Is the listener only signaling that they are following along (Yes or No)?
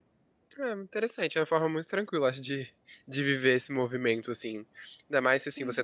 Yes